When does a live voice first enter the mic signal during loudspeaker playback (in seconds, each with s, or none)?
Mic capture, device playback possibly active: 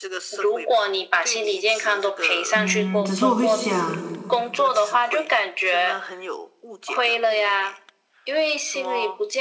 2.5 s